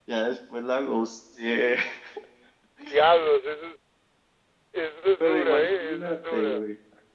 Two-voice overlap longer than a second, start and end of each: 5.2-6.6

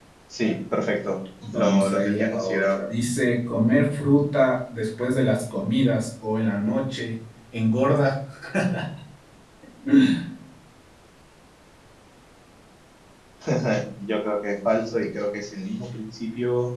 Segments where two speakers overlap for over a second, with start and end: 1.5-2.8

